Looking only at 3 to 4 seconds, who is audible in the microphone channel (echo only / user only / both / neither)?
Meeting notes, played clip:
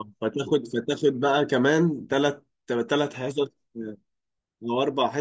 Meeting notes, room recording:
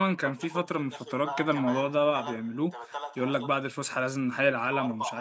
both